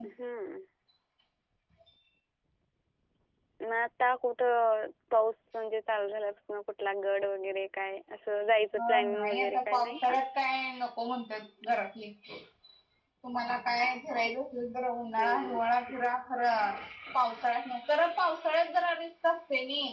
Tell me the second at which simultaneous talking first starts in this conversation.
9 s

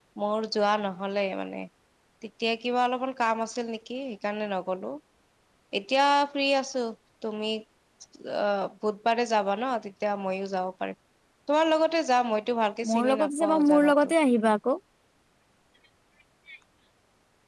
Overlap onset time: 13 s

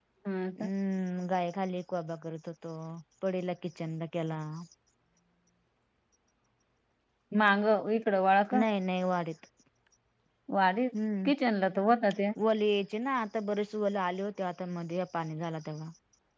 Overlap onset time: none

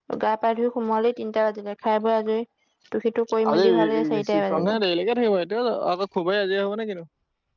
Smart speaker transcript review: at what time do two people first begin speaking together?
4 s

